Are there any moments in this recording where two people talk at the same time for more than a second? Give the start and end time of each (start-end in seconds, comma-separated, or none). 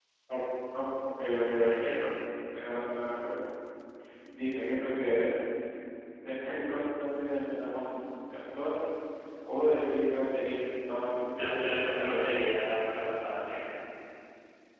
11.3-12.5